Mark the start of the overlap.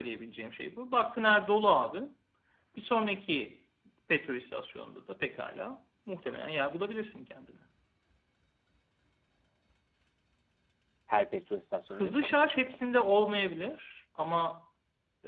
11.9 s

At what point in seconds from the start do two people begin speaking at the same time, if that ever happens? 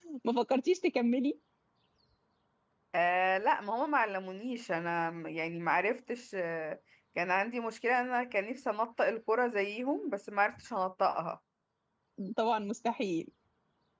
none

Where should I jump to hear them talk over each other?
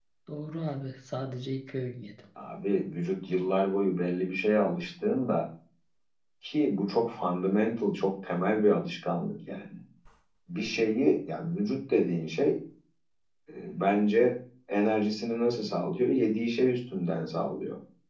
none

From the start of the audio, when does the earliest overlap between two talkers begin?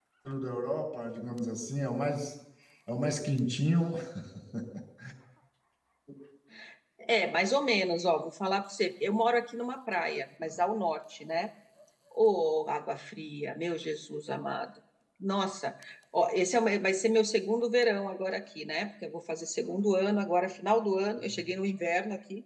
none

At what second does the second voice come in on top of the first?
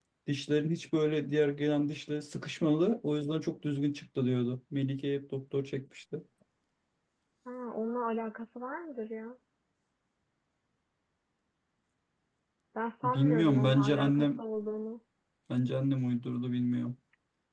13.0 s

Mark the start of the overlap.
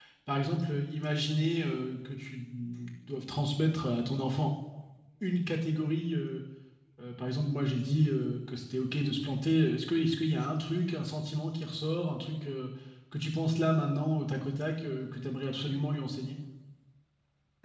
none

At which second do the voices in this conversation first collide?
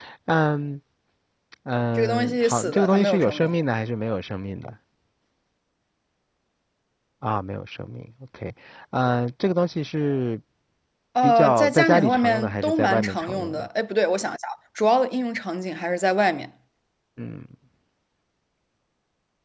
2.0 s

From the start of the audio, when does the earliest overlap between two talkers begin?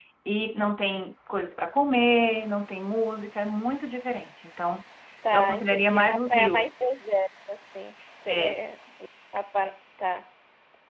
5.3 s

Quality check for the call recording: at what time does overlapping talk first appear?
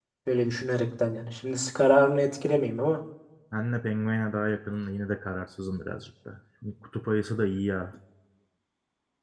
none

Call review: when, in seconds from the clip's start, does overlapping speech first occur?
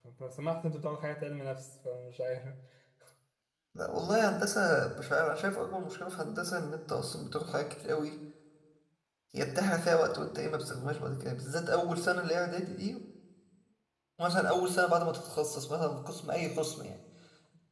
none

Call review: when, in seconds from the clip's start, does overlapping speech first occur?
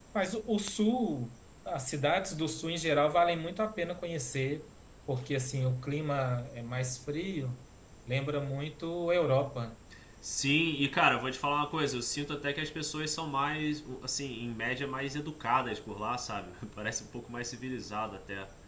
none

